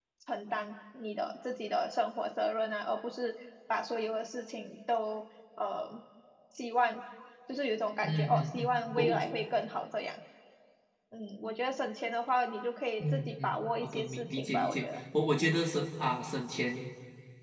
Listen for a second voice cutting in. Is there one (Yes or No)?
Yes